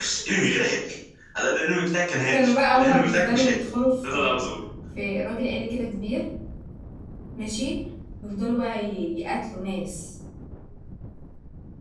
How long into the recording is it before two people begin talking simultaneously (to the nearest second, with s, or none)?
2 s